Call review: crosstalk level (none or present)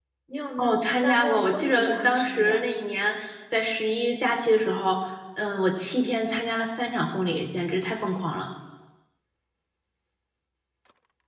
present